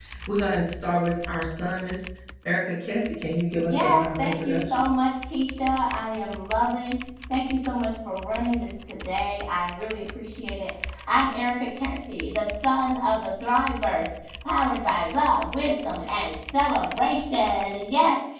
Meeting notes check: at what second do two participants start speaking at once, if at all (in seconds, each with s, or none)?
3.6 s